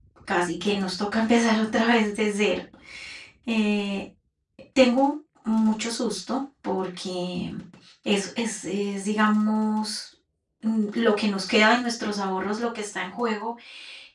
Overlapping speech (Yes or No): No